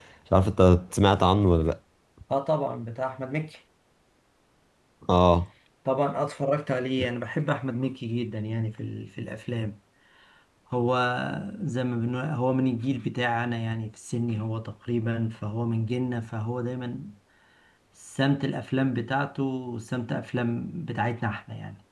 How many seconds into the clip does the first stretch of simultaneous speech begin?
none

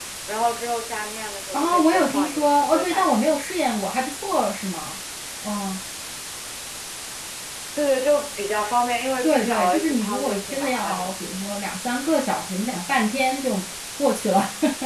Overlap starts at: 1.5 s

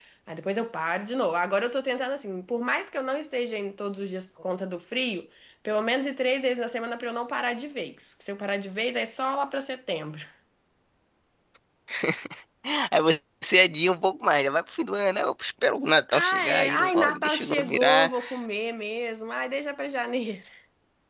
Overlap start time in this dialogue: 16.1 s

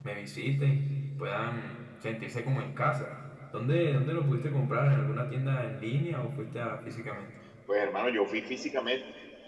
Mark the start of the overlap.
none

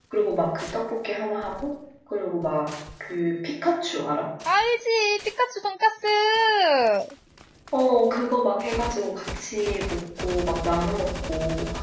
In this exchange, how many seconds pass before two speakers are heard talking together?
none

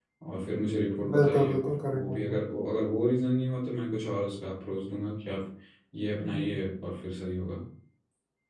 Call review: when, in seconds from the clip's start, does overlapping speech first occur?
1.1 s

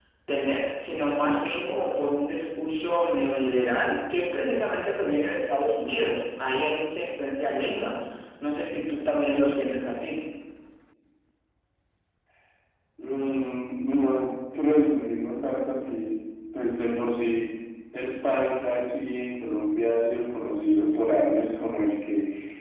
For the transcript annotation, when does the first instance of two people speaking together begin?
none

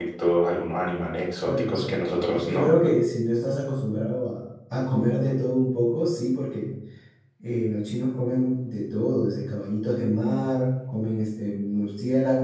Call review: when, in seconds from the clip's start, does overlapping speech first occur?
1.4 s

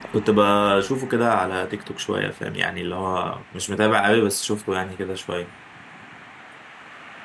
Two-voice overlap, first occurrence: none

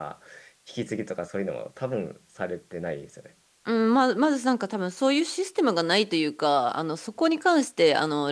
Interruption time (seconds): none

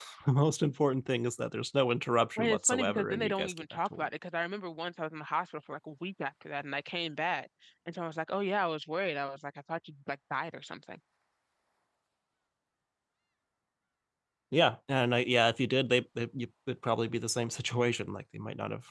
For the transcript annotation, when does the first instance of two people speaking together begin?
2.4 s

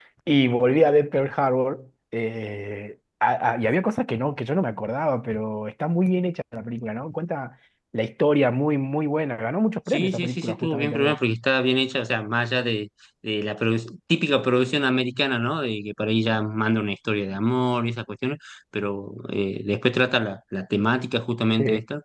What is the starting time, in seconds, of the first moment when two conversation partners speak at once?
9.9 s

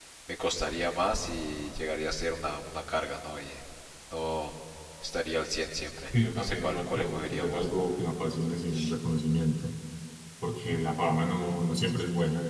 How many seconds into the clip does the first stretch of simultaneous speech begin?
6.1 s

